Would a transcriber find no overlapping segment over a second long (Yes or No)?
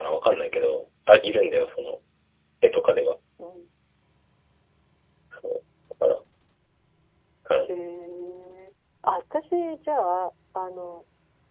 Yes